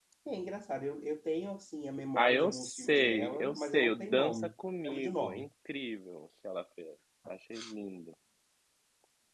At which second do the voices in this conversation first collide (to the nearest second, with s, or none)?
2 s